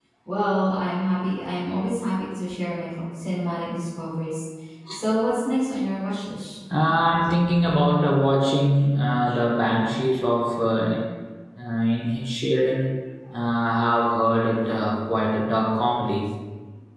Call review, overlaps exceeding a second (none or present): none